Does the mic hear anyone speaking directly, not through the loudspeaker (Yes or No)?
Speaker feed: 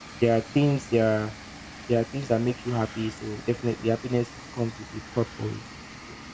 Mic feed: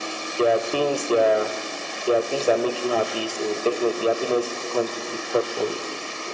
No